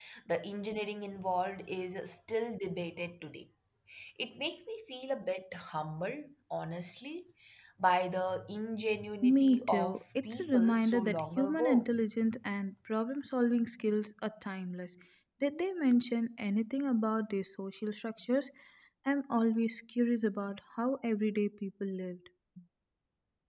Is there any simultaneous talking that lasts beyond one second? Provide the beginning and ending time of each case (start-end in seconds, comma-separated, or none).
9.2-11.8